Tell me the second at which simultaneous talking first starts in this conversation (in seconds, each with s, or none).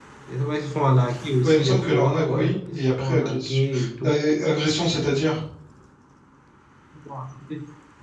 1.4 s